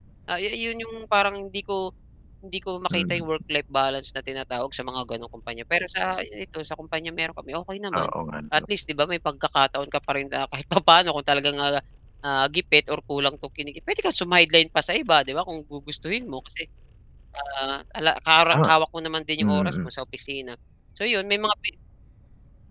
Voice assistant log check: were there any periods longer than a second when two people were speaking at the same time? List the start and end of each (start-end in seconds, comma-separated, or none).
none